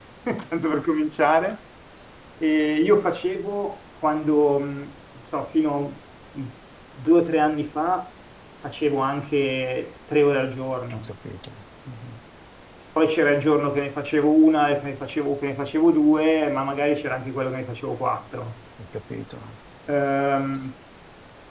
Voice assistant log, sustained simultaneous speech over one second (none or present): none